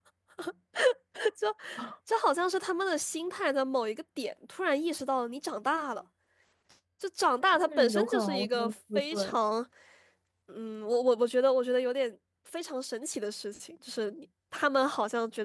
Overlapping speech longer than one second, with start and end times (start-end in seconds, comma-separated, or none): 7.5-9.4